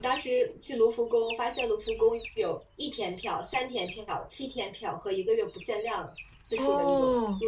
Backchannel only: Yes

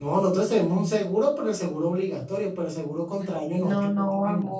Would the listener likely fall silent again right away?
No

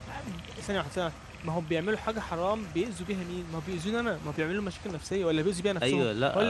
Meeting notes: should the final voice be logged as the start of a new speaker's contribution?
Yes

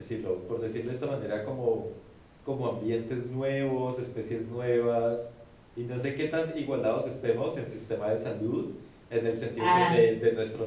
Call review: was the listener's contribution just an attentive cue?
Yes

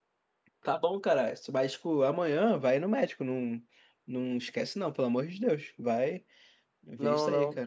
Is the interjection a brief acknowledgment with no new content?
No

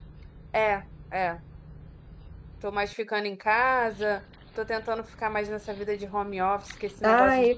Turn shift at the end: Yes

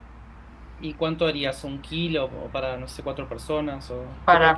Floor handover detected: Yes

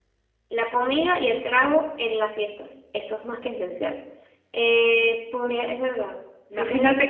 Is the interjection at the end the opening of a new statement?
Yes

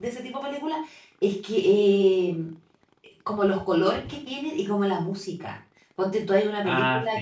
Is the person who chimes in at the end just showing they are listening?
Yes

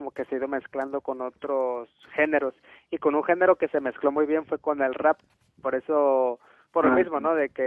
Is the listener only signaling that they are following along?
Yes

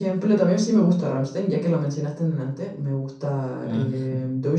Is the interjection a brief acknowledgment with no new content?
Yes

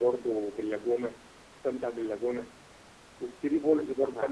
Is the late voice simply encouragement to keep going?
Yes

